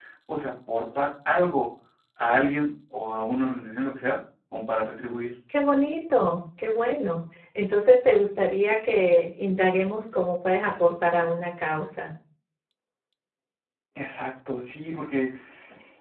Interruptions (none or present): none